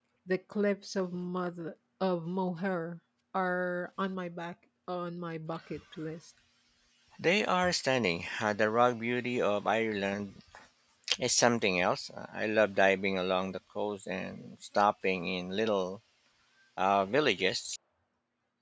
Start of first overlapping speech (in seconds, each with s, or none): none